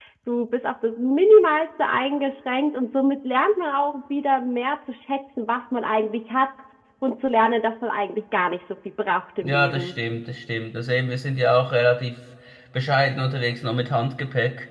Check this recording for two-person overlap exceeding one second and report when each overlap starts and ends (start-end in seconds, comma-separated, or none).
none